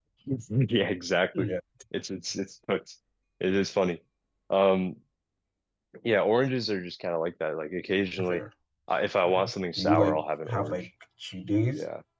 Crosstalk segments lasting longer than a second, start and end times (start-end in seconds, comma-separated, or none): 9.2-10.9